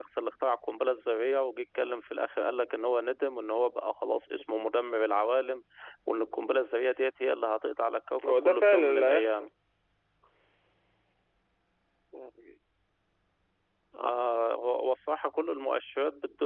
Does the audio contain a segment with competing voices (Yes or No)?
Yes